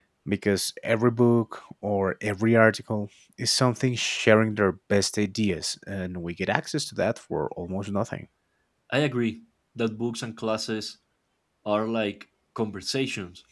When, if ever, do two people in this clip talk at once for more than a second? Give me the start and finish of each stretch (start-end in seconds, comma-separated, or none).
none